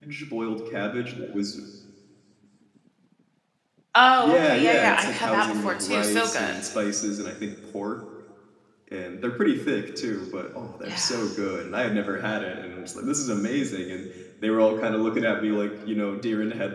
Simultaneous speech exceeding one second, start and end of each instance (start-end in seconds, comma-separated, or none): 4.2-6.6